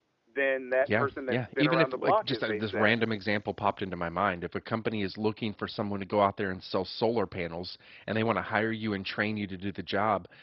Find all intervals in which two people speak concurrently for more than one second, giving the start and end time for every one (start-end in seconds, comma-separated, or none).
0.8-3.0